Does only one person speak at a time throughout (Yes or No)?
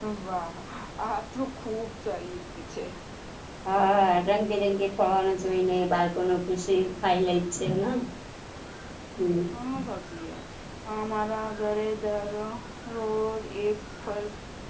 Yes